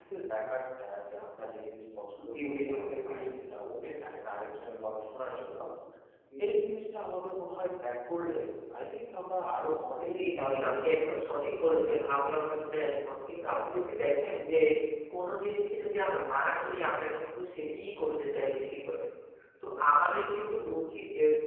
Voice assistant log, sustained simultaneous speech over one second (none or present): present